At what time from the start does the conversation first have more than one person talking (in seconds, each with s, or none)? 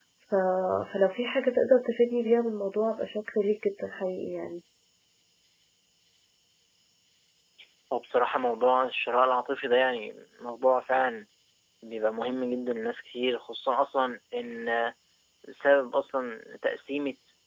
none